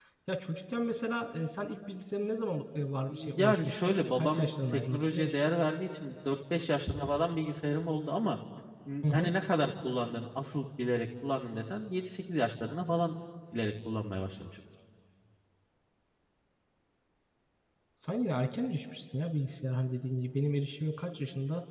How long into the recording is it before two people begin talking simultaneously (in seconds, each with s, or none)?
3.1 s